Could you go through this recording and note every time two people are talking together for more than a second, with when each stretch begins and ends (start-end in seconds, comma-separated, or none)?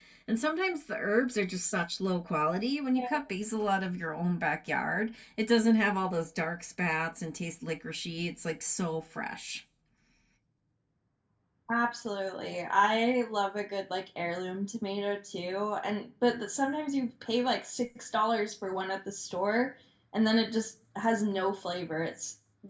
none